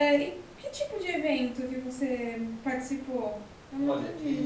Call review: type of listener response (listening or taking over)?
taking over